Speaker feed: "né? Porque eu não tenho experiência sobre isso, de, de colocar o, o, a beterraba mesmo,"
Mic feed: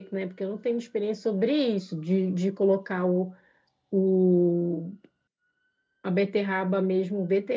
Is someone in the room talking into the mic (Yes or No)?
No